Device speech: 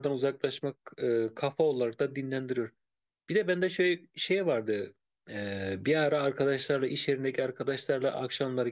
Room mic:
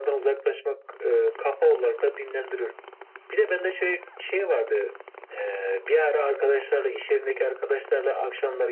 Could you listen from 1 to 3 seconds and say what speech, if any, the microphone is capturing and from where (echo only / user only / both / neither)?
echo only